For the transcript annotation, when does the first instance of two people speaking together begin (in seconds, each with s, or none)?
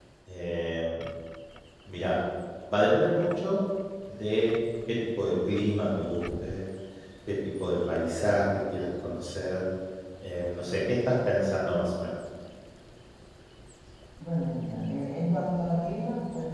none